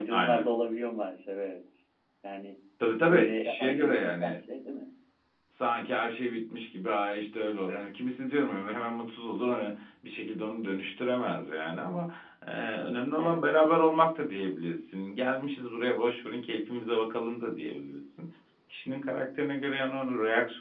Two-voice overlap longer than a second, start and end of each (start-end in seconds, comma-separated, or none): 3.1-4.3